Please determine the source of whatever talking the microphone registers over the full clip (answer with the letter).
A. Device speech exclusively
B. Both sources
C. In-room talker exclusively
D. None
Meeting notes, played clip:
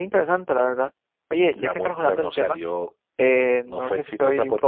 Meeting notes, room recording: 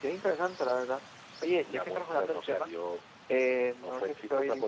A